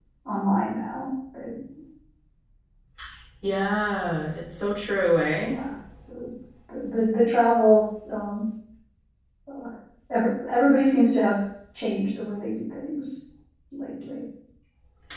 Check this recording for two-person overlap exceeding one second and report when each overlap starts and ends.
none

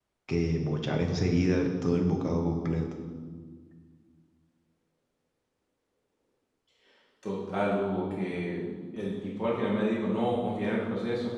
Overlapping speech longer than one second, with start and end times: none

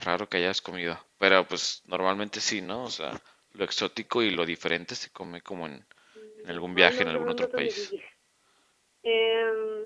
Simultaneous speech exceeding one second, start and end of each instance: 6.5-7.9

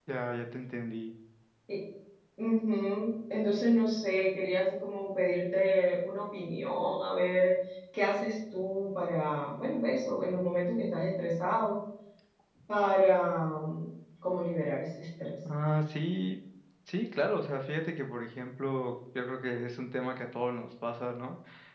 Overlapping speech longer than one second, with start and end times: none

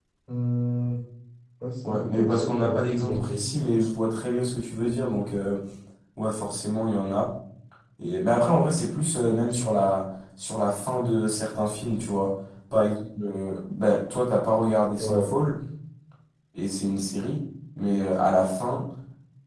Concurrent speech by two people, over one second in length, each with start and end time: 1.9-3.5

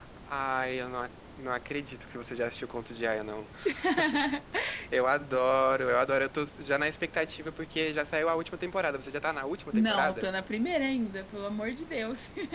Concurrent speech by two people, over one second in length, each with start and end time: none

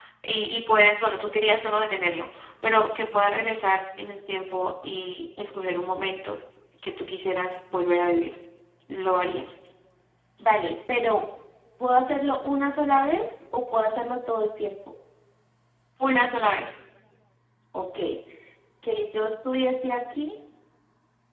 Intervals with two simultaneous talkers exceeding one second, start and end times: none

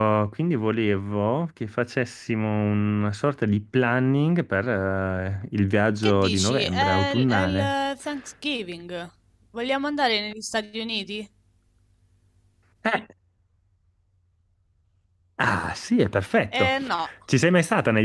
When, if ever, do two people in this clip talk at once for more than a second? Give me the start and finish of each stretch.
6.0-7.7

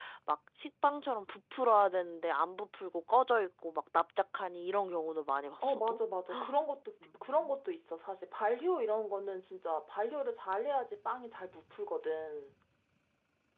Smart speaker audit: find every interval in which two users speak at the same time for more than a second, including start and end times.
none

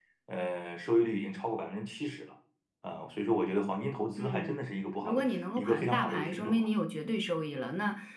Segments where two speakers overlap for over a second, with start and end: 5.0-6.7

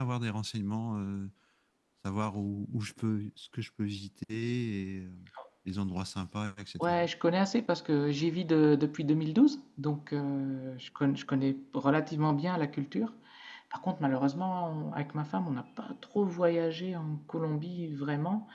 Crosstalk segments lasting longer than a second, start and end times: none

